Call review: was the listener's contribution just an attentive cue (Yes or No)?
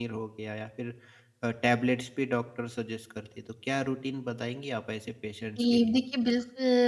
No